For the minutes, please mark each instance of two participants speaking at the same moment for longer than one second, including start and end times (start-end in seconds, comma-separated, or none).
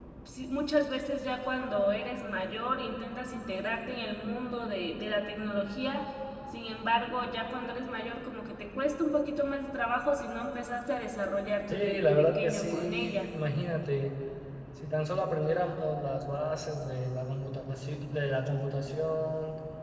11.7-13.3